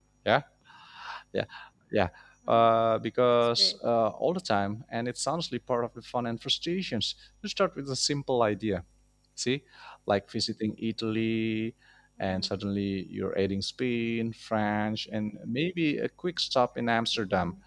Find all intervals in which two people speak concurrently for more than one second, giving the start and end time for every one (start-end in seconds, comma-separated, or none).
none